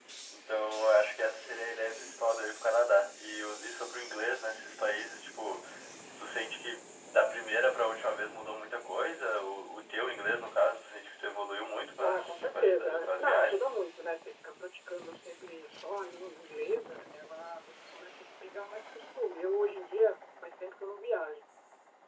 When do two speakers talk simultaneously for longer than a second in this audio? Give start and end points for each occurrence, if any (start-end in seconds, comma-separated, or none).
12.0-13.7